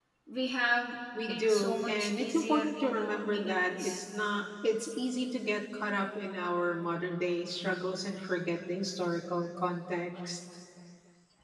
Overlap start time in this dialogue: 1 s

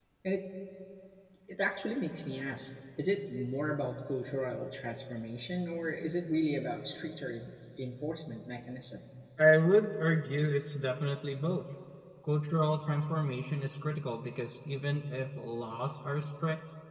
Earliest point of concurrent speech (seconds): none

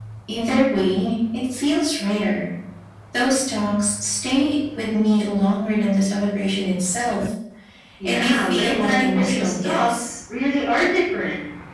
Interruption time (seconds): 8 s

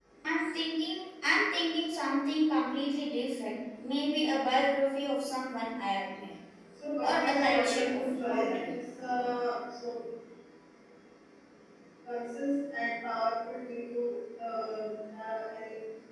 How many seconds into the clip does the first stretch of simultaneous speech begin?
7 s

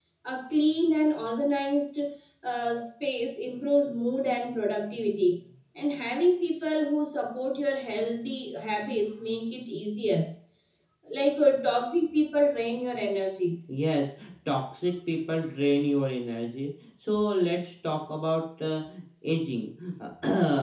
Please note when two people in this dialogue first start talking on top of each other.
none

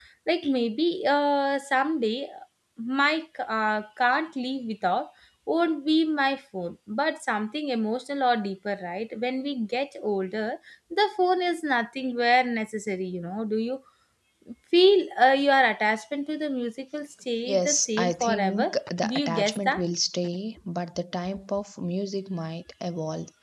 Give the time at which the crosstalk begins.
17 s

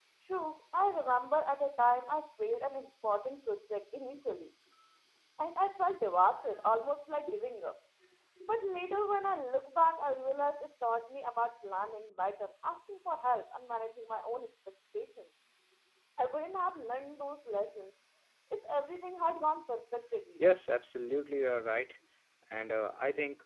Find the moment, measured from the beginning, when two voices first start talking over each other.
none

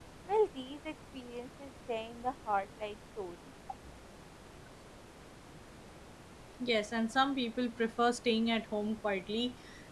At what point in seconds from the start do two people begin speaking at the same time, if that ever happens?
none

